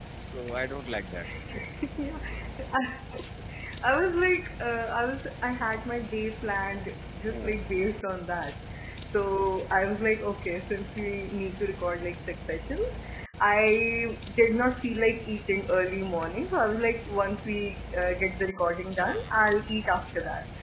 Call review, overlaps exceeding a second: none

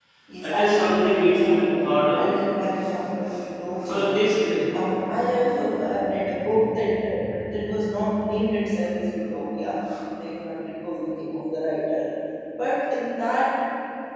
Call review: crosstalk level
present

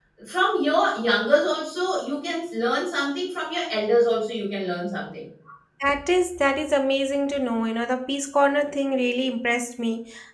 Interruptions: none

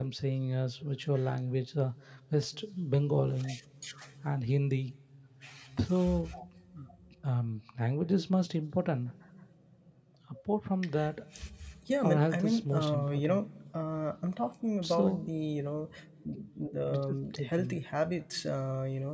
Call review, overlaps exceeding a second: present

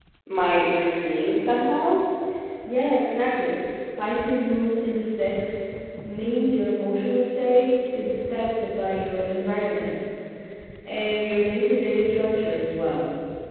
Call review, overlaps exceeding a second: none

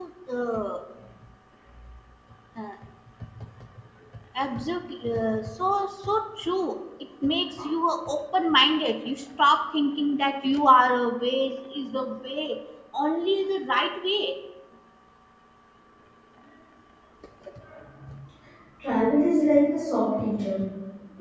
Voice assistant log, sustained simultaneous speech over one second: none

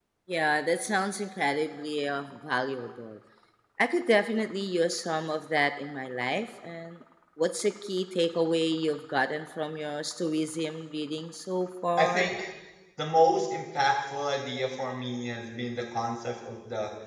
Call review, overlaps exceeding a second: none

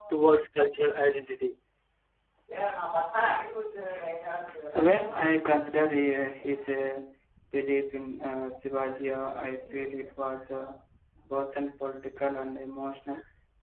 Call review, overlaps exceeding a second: none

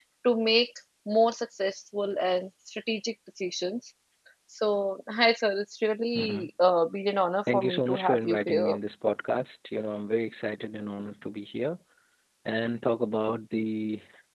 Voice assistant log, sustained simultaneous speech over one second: present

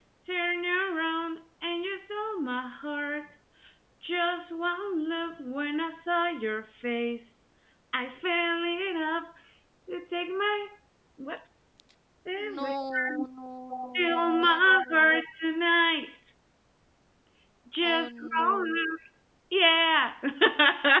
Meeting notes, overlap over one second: present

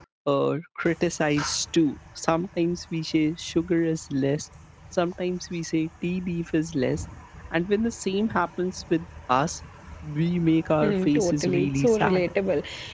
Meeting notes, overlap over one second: present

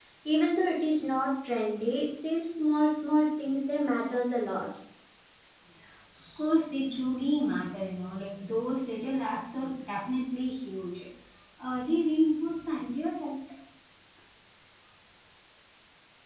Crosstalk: none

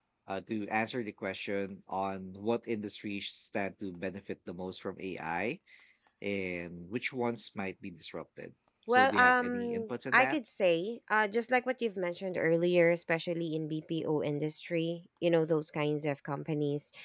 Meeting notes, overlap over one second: present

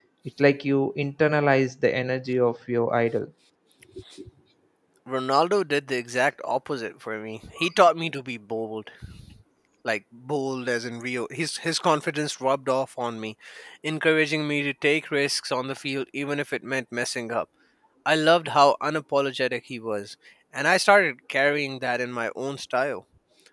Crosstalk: none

